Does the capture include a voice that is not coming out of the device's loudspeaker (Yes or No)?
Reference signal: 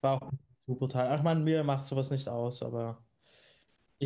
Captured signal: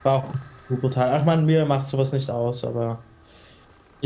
No